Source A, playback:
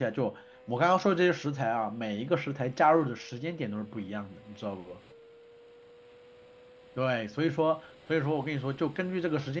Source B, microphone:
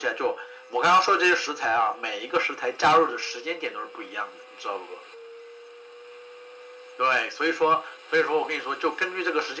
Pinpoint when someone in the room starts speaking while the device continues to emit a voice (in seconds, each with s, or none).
none